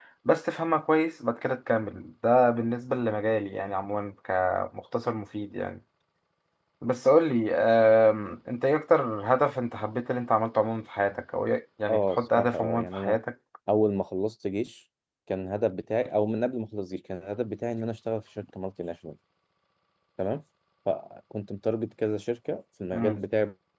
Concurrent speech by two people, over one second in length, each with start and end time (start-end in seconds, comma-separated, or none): 11.9-13.2